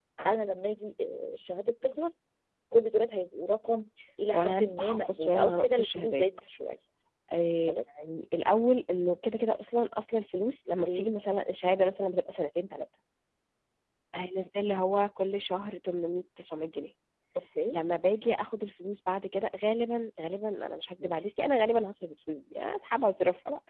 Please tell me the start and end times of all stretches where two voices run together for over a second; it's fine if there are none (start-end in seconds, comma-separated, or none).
4.3-6.2